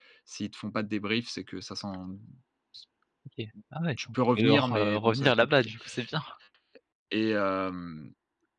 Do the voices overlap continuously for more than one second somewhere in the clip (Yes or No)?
Yes